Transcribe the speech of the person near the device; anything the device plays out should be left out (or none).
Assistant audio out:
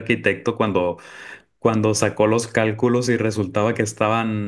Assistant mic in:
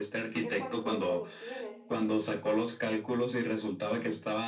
ya cuánto tiempo no tienen.